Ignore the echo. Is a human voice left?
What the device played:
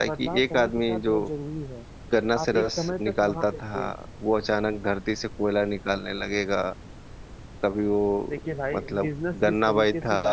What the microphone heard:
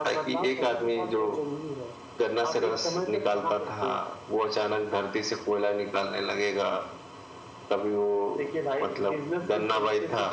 No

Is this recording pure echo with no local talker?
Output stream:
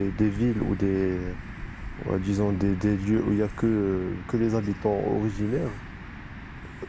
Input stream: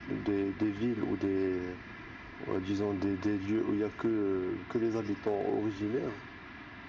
Yes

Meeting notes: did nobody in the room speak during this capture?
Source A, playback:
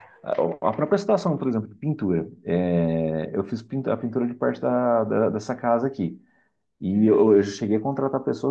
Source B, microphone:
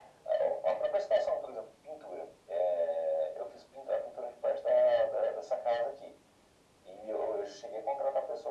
Yes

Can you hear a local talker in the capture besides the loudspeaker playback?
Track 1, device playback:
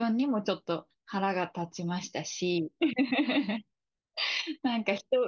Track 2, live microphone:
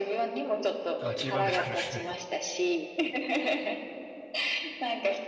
Yes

